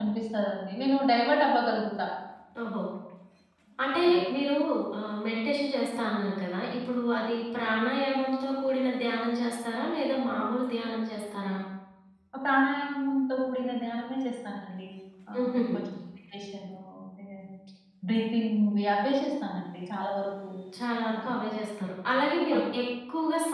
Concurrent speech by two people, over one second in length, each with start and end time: none

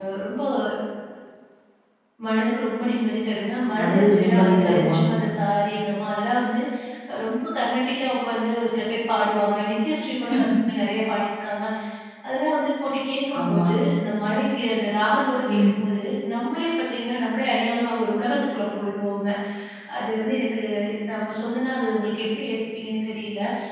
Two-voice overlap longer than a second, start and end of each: 3.8-5.0

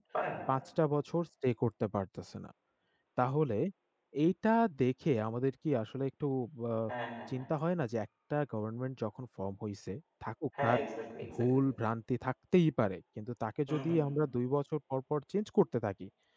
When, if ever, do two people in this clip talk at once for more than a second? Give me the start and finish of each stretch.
none

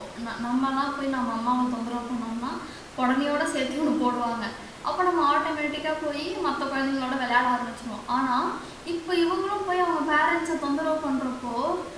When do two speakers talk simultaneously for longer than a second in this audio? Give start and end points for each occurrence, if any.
none

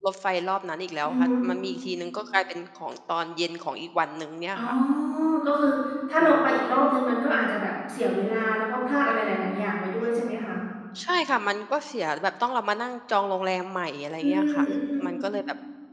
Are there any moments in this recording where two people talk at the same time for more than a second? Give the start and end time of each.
none

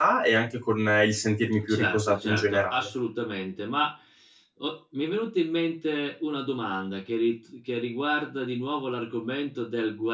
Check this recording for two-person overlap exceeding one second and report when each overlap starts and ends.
1.7-2.9

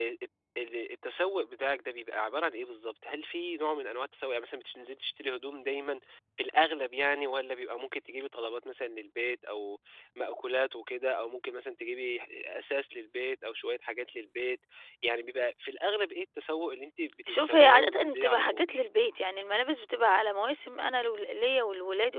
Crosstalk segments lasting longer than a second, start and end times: 17.3-18.6

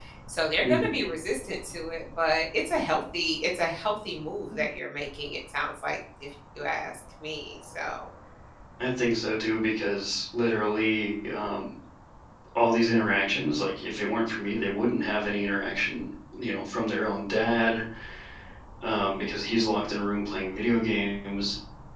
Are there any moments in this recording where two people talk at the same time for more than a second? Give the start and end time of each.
none

